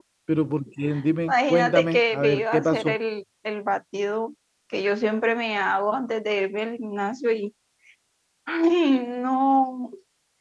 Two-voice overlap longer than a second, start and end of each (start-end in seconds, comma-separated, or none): 1.3-3.0